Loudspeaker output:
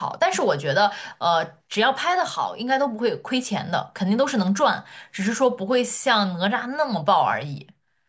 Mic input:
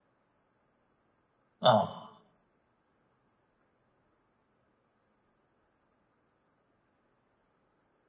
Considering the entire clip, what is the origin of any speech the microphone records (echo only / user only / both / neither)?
user only